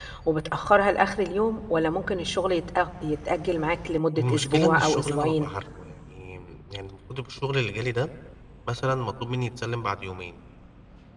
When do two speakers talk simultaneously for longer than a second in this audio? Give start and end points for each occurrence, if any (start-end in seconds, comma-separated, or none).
4.2-5.5